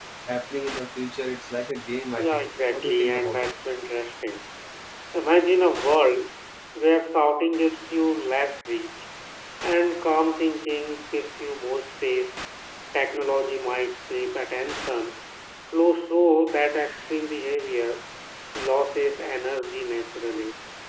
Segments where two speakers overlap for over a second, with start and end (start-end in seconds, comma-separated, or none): 2.2-3.6